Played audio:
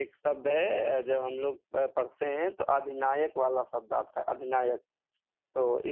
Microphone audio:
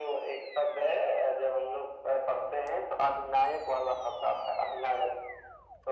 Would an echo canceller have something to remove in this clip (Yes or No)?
Yes